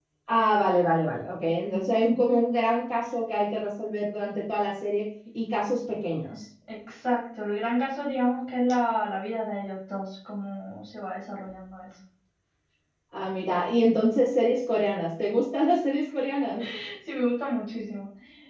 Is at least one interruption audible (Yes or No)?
No